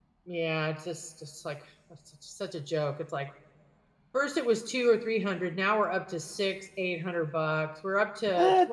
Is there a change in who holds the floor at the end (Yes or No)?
No